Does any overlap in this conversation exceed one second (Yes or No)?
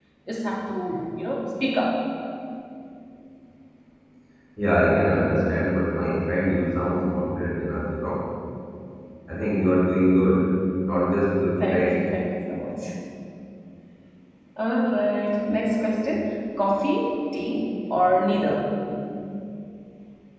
No